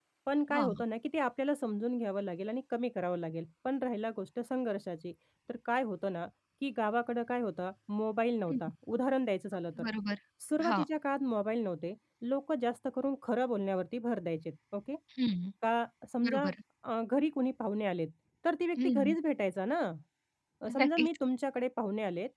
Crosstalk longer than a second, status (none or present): none